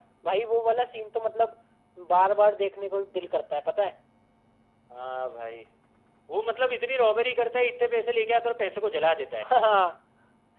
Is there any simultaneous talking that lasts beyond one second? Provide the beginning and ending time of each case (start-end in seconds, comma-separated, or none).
none